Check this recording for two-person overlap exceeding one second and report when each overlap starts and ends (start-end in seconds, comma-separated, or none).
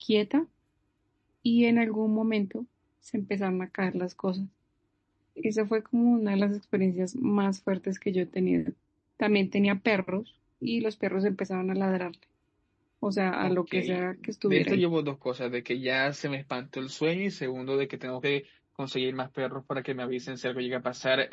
13.4-14.8